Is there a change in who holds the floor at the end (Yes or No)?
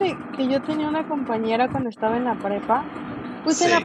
No